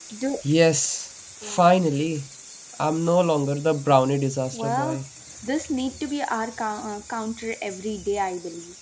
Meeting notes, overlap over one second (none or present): none